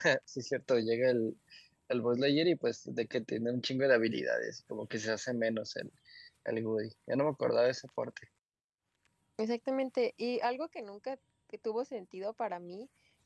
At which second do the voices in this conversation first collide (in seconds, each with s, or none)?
none